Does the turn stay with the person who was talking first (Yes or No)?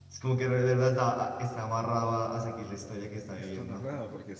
No